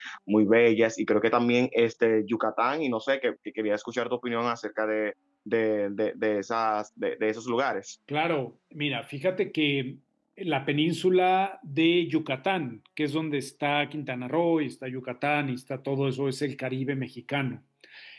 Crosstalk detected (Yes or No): No